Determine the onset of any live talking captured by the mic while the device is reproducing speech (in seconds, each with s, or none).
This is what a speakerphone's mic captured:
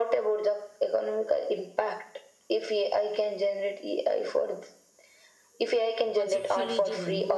6.1 s